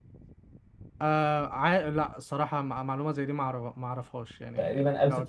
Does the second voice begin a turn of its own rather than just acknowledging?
Yes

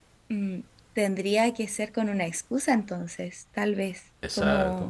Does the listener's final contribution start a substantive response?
Yes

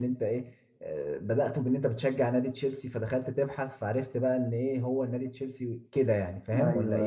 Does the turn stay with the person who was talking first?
No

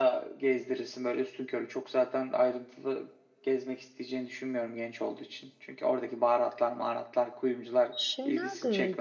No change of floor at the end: No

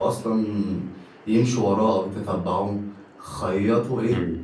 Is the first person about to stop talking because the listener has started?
No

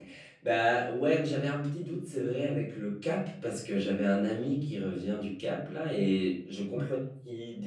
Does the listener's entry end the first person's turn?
No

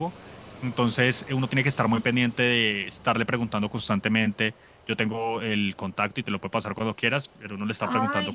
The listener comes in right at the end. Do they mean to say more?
No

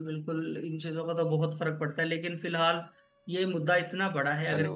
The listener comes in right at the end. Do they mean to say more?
No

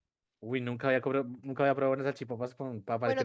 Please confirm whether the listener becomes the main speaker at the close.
Yes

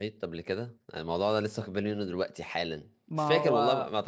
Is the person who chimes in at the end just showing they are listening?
Yes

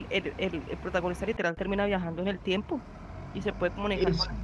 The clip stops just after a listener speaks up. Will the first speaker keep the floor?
Yes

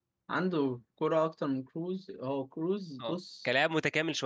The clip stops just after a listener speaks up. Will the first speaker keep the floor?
No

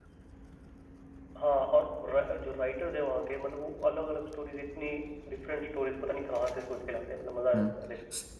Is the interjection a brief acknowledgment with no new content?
No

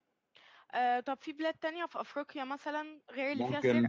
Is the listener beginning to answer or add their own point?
Yes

